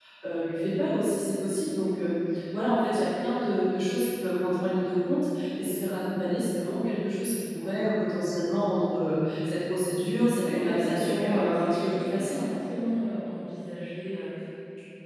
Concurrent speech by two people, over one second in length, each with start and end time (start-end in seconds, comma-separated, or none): 10.4-12.4